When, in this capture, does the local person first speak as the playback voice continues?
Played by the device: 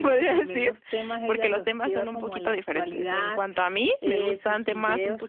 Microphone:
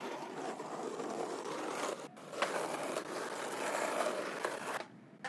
none

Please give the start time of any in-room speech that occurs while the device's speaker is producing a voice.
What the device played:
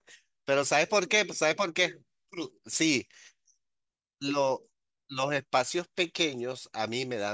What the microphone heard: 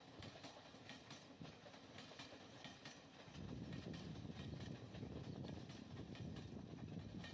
none

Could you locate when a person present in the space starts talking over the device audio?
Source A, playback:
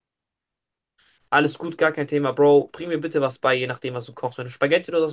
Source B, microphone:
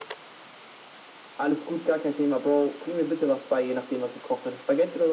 none

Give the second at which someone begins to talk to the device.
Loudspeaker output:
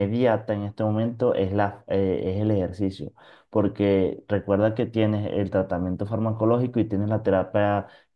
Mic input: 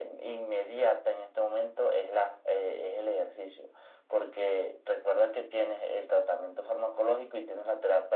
none

